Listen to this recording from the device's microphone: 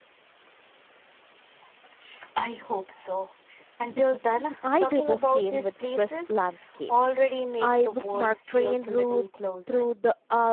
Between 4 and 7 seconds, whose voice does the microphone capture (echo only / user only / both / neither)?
both